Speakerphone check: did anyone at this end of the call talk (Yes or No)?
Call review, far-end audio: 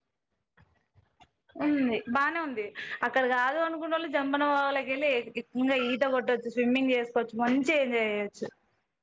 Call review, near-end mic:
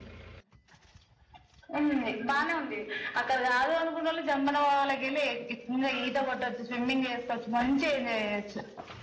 No